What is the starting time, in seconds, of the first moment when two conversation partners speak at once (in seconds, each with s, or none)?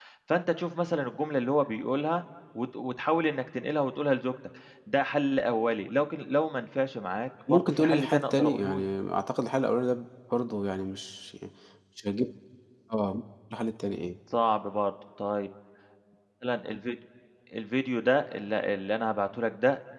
7.5 s